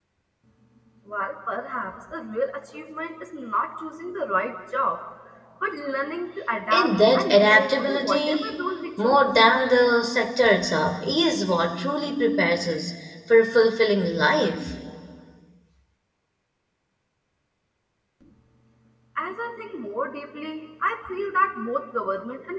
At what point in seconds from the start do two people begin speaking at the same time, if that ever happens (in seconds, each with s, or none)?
6.7 s